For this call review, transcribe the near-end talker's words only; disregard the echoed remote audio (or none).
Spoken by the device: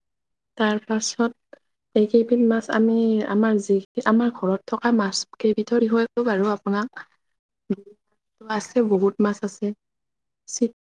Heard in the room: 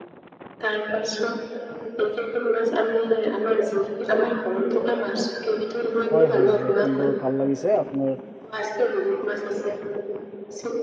হয়, হয়, হয় সুন্দৰ ভাল লাগিছে আপোনাৰ